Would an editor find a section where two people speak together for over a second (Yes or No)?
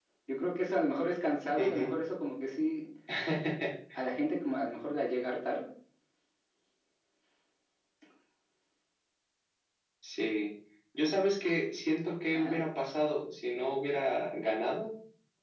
No